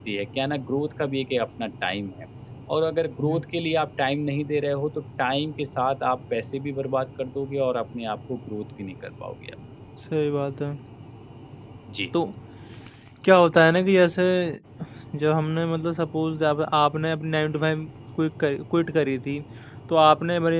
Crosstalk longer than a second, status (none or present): none